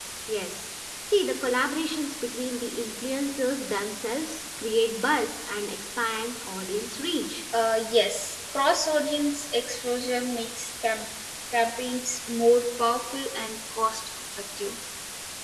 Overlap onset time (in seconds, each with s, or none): none